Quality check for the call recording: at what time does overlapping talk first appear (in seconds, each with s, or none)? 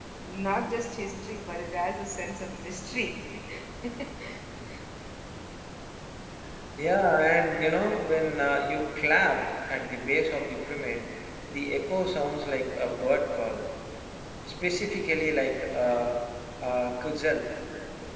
none